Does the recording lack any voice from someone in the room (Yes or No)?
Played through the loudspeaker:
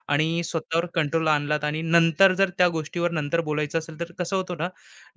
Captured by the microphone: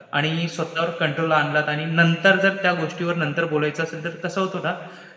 Yes